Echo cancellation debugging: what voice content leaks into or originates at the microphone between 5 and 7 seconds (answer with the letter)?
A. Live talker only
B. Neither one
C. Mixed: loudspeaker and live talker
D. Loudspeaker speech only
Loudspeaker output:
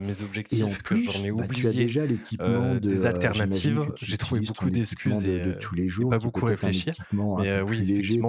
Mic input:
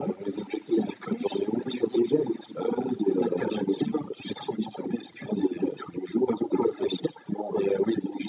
D